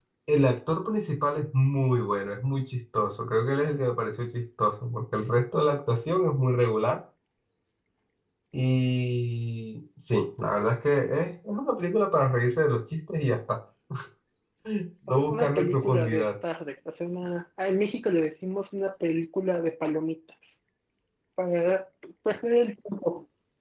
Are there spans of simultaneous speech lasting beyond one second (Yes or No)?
Yes